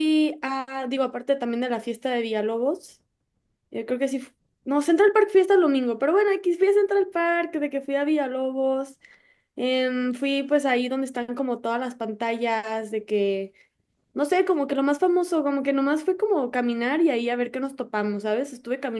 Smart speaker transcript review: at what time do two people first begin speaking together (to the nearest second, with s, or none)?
none